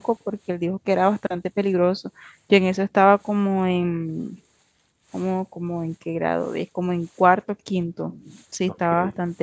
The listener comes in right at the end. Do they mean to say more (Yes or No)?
No